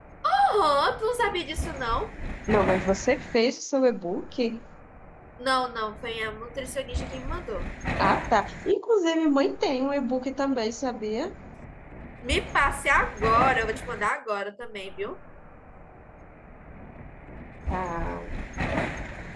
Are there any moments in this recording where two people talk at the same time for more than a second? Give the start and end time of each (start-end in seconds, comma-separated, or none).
none